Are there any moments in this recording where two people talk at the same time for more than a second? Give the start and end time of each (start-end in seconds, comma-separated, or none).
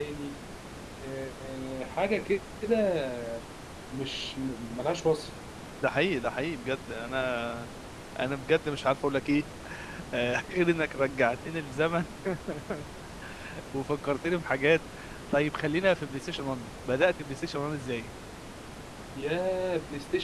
none